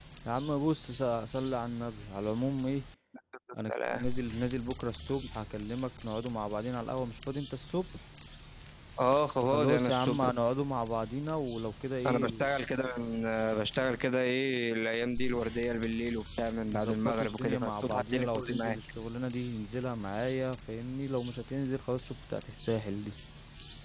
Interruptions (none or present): present